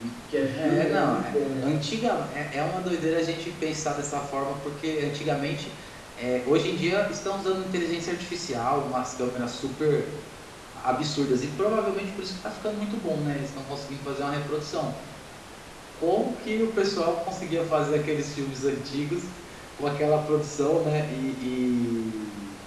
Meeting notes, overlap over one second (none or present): present